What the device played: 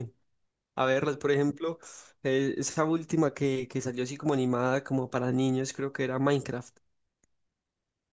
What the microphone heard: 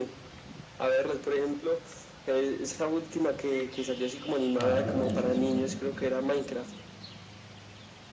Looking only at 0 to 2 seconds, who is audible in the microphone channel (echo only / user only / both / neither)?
echo only